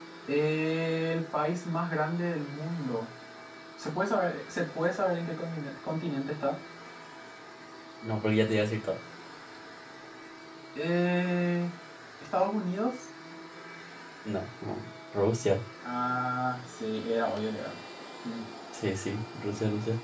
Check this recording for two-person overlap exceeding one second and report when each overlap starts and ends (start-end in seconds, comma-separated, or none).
none